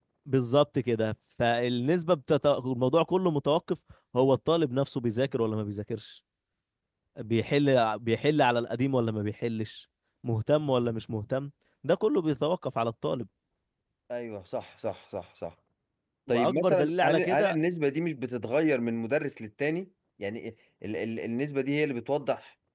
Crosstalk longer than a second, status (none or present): present